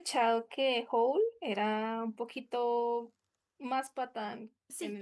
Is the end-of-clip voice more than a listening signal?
Yes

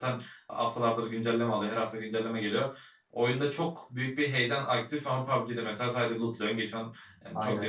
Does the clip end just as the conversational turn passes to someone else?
No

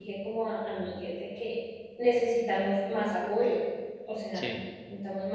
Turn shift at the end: No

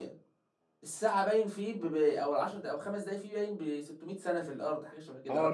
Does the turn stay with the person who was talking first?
No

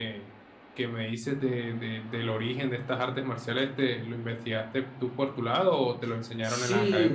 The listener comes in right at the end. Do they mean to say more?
Yes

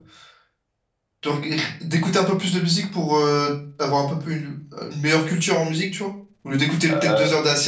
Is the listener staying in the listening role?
Yes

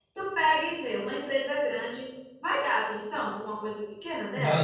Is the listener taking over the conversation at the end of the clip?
Yes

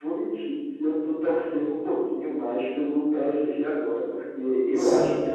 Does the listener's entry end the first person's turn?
No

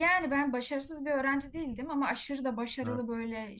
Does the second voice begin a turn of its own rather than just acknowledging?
No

